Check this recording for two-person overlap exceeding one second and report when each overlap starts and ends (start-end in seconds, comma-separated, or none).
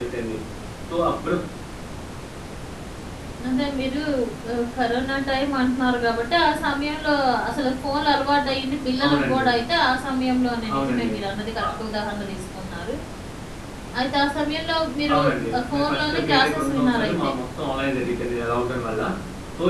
15.7-17.3